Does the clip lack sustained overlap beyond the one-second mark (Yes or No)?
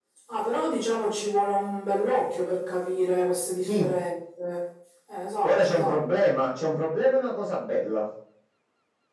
Yes